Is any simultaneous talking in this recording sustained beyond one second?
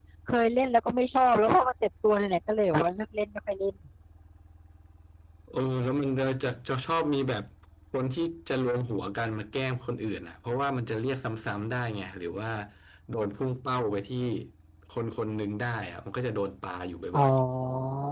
No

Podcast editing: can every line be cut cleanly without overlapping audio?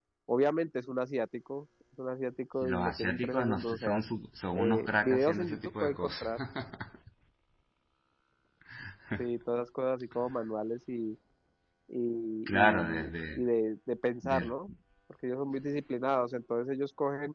No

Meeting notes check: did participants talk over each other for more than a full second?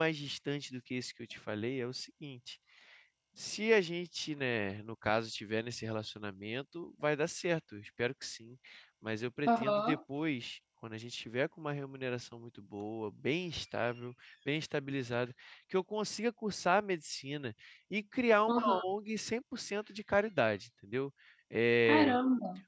No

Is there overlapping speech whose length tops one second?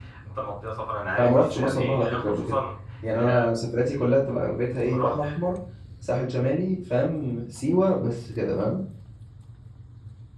Yes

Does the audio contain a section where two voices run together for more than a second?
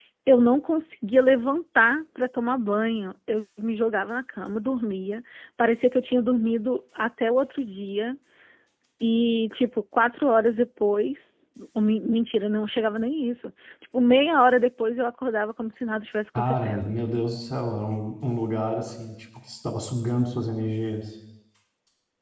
No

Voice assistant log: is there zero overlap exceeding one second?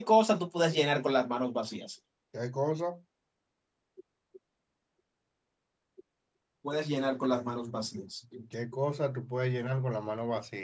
Yes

